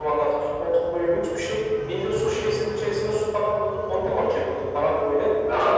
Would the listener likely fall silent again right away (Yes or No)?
No